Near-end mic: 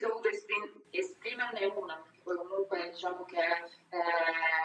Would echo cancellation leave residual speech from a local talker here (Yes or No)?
No